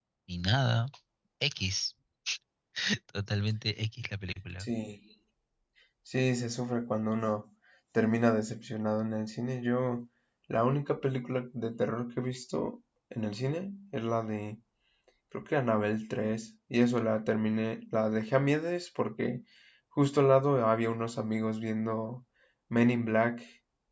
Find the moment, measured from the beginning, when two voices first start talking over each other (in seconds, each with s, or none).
none